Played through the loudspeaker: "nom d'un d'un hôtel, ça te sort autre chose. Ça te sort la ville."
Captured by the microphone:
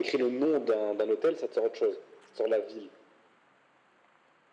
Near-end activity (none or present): none